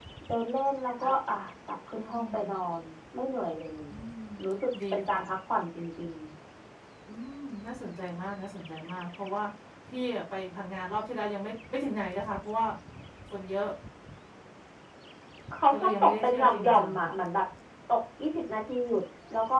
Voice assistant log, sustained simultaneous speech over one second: present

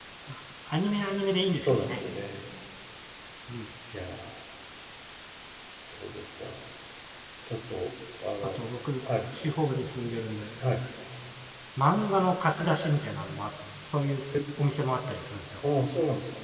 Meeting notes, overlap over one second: none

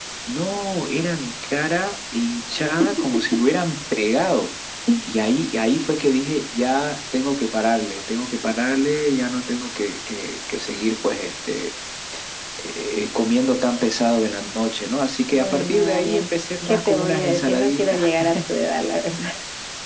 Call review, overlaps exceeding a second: present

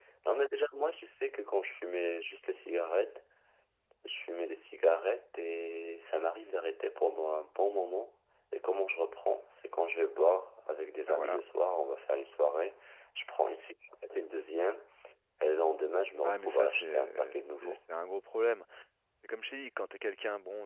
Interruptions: present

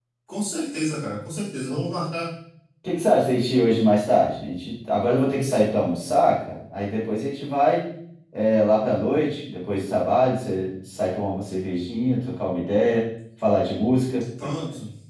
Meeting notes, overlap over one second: none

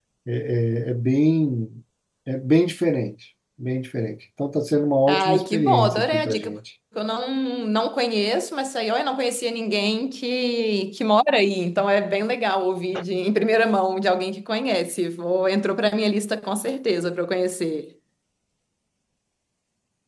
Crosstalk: present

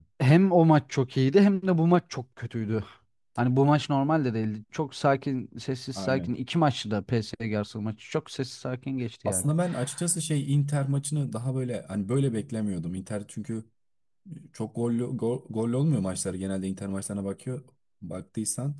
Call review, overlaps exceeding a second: none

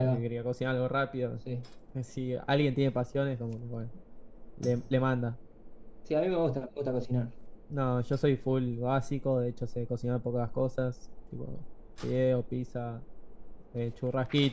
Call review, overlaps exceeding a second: none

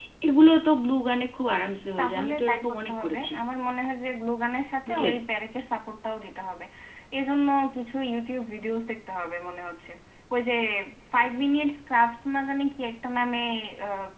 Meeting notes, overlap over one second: present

